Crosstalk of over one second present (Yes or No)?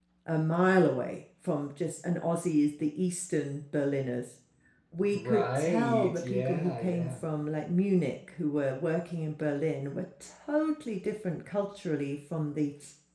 Yes